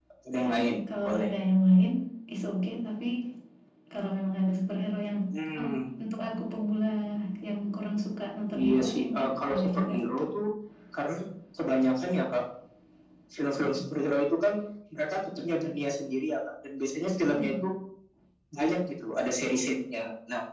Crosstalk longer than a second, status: present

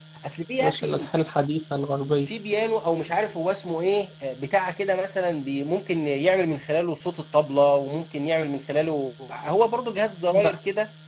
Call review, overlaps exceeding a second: none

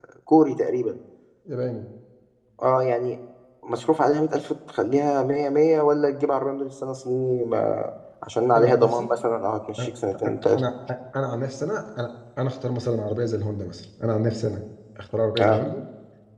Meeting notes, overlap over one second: none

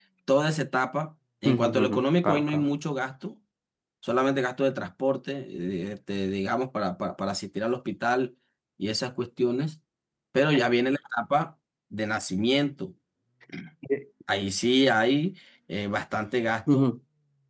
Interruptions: present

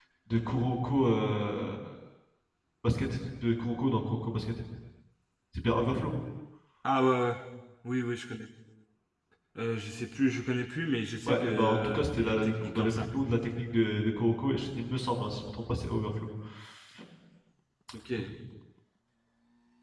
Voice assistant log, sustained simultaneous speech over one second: present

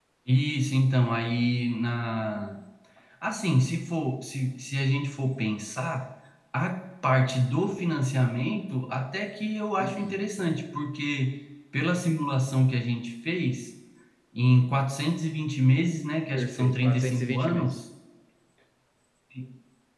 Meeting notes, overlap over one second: present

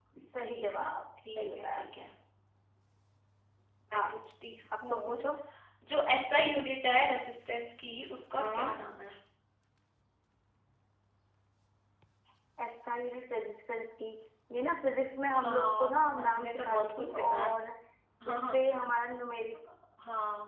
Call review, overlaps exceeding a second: present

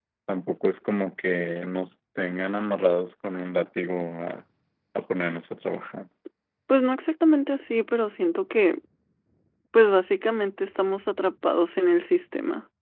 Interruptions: none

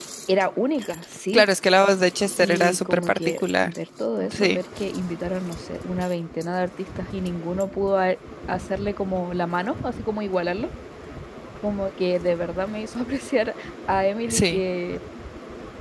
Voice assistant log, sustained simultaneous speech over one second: present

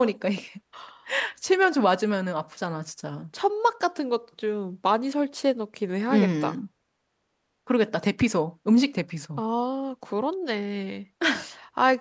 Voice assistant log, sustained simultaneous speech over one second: none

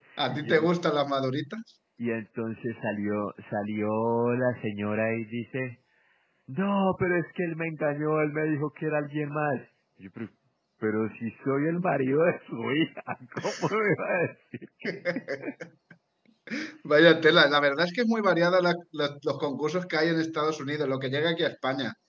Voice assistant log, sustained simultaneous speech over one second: none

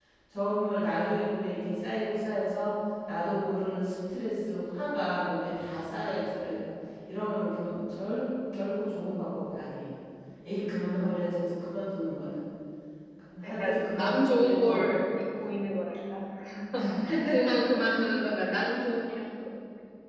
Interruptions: present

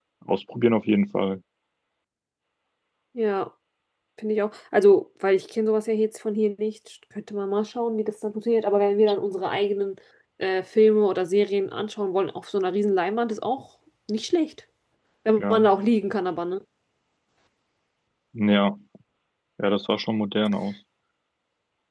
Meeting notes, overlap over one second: none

